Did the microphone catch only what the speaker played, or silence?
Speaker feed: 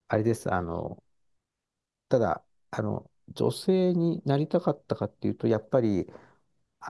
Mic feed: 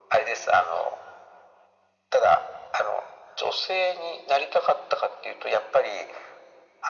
Yes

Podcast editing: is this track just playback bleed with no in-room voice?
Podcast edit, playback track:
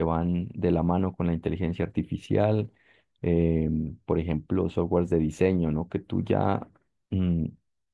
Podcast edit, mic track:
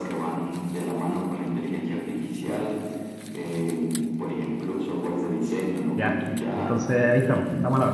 No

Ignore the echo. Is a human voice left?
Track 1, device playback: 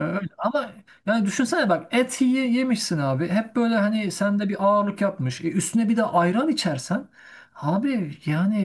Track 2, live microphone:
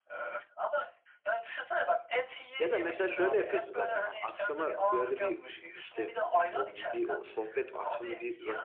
Yes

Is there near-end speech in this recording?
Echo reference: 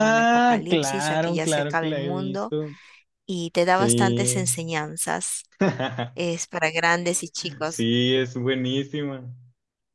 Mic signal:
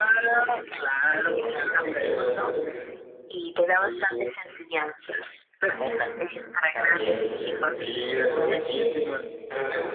Yes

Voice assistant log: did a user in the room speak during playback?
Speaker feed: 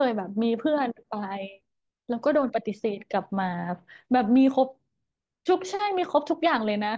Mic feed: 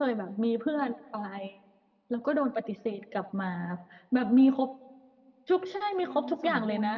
Yes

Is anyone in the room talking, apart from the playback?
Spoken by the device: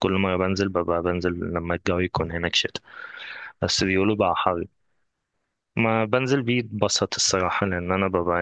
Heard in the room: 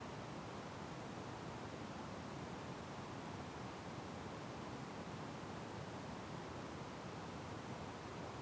No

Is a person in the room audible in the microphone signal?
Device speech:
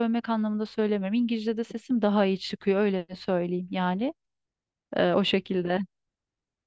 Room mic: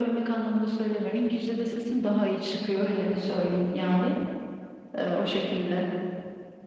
No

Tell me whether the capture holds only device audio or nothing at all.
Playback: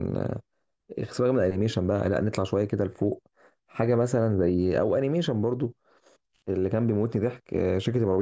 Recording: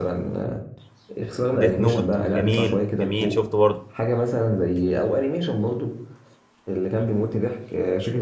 No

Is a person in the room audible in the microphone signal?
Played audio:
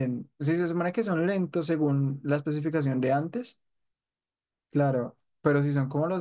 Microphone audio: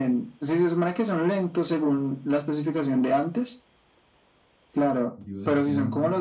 Yes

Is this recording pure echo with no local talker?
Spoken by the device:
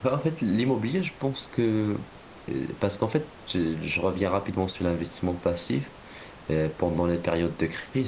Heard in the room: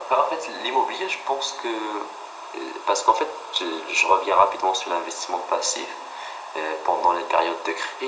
Yes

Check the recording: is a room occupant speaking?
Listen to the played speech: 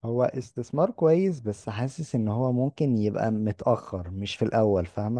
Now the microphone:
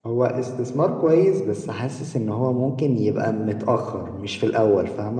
No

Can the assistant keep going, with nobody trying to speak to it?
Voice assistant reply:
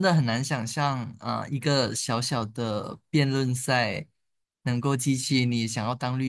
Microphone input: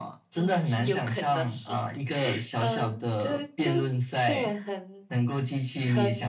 No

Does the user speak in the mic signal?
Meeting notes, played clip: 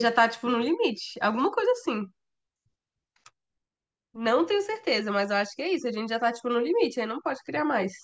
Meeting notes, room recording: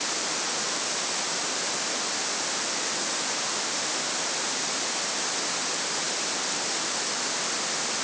No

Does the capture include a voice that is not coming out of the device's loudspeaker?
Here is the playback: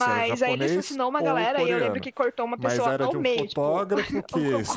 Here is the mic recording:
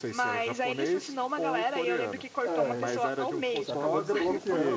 Yes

